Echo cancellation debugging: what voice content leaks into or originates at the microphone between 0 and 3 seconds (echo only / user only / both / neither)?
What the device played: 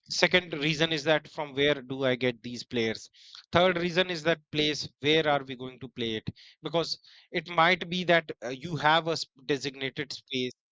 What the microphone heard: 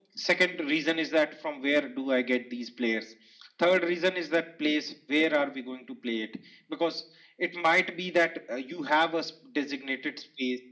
echo only